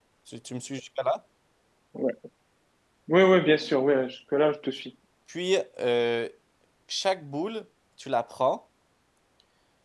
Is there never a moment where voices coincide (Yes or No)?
Yes